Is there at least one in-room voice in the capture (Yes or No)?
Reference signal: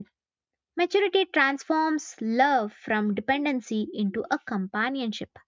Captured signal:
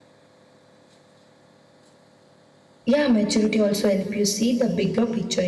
Yes